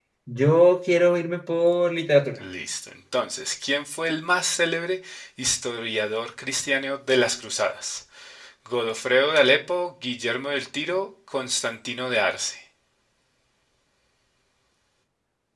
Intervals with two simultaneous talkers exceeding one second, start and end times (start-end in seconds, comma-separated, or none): none